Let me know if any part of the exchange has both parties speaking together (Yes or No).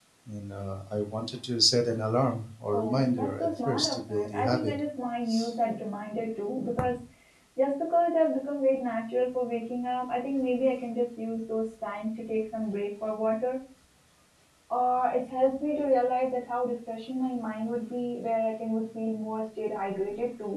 Yes